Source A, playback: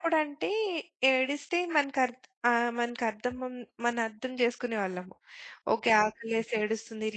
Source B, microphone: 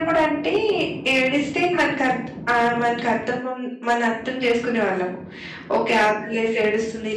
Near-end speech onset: none

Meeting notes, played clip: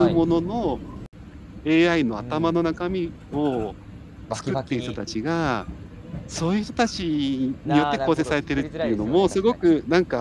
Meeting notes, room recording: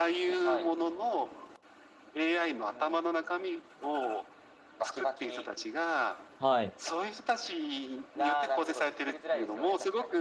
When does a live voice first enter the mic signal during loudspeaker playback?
6 s

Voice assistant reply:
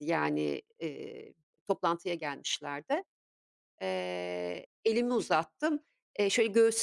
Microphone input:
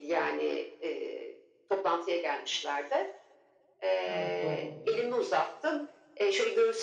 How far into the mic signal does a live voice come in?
4 s

